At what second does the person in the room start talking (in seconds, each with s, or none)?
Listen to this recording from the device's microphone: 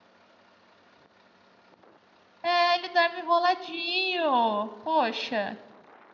2.4 s